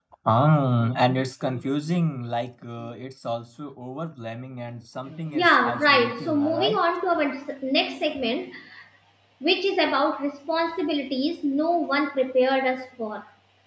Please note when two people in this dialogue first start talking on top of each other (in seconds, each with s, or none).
5.3 s